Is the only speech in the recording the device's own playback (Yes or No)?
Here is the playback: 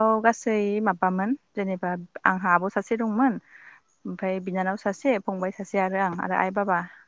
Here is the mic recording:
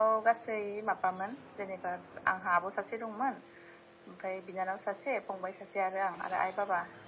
Yes